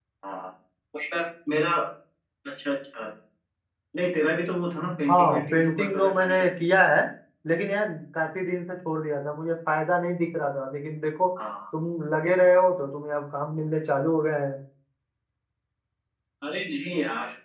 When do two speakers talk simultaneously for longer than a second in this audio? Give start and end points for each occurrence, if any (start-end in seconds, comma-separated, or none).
5.1-6.7